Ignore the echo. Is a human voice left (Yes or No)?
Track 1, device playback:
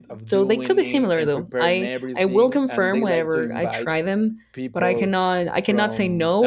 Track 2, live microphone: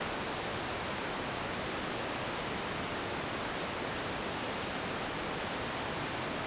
No